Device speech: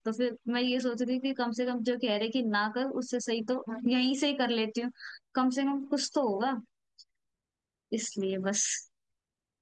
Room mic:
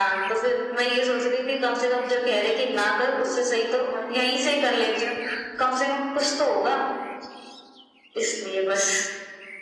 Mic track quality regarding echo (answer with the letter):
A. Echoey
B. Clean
A